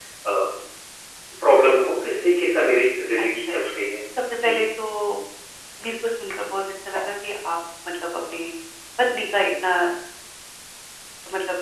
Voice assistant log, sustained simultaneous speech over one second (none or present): none